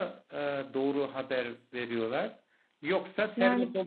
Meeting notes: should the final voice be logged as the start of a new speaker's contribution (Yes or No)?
No